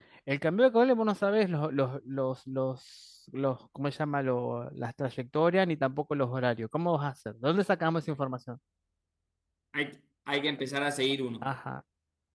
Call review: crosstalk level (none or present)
none